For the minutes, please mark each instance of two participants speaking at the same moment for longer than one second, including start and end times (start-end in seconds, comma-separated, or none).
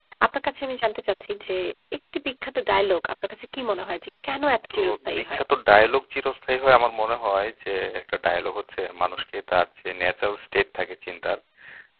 none